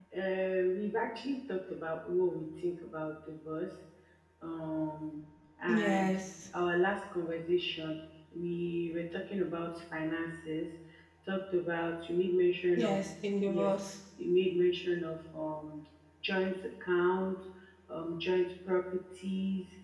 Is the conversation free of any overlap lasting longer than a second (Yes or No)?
Yes